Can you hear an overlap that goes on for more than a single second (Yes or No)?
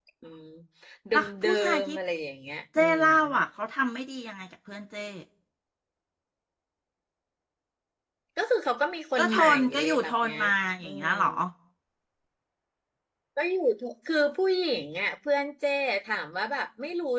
Yes